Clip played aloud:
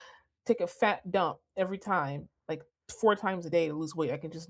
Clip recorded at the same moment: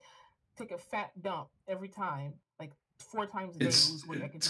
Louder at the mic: user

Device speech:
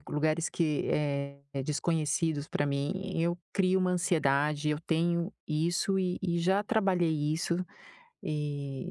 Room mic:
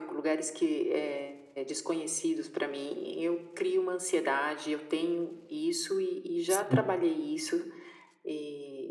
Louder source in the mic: user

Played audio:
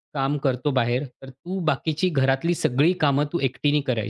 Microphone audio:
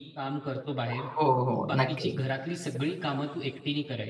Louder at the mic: user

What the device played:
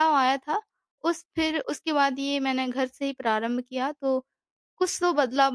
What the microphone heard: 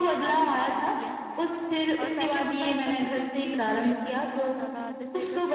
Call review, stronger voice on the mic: echo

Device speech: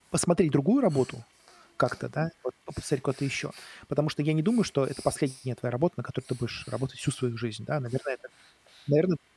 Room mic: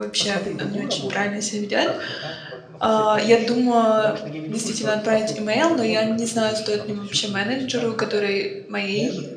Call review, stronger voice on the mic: user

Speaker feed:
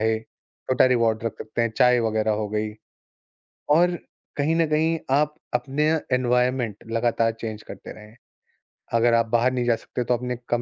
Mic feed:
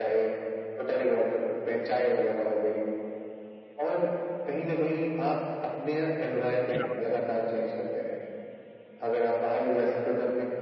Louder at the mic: echo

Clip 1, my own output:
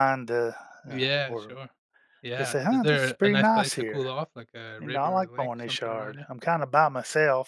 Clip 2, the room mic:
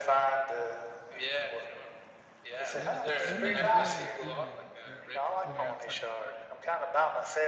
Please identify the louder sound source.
echo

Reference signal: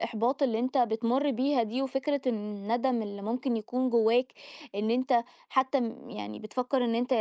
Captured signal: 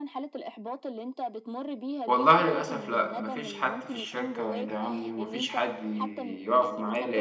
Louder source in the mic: user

